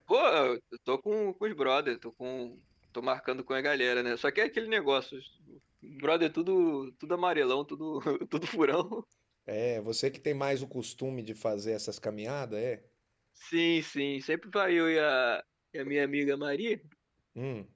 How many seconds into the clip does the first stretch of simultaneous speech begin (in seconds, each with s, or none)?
none